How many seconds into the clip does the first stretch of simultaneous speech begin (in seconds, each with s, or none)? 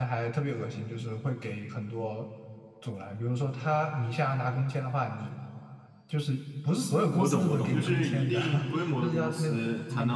7.1 s